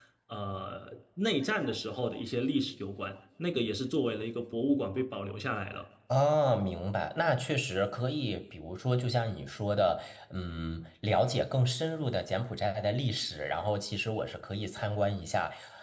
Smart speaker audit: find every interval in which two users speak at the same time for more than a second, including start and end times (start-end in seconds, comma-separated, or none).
none